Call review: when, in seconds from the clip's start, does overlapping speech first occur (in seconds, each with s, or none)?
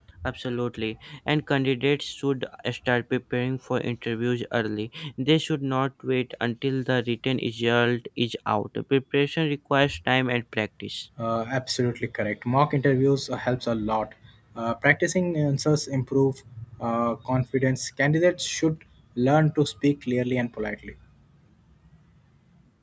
none